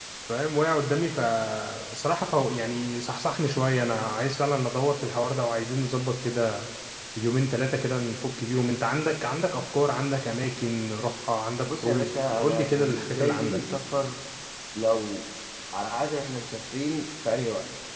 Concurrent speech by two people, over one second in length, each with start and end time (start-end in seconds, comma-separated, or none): 11.8-13.6